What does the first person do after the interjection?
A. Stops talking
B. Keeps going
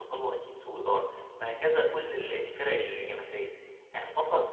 B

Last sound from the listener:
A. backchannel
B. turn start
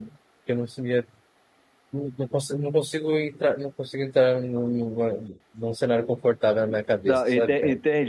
B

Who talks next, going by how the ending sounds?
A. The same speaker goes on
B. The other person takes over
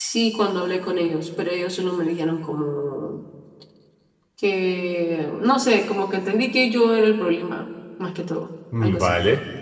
B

